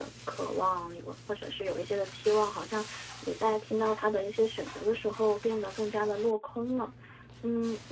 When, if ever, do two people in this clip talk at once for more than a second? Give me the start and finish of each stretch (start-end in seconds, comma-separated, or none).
none